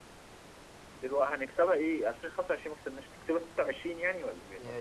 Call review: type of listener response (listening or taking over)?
taking over